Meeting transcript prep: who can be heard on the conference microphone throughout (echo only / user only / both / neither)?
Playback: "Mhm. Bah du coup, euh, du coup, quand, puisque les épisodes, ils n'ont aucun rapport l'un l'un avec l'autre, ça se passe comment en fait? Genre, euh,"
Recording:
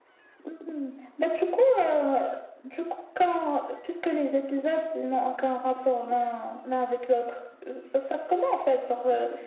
echo only